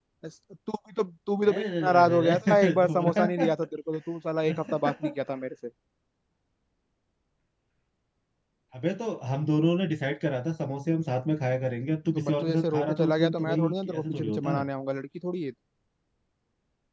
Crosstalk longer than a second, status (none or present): present